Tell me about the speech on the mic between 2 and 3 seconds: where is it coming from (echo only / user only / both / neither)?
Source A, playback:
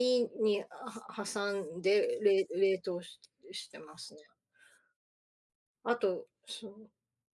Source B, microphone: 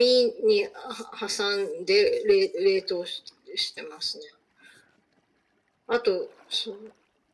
echo only